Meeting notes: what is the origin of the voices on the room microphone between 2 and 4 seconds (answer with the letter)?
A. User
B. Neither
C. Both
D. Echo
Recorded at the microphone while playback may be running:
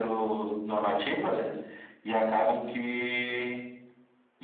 D